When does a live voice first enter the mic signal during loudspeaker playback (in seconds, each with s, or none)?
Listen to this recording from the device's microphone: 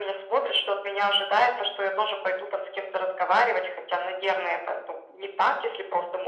none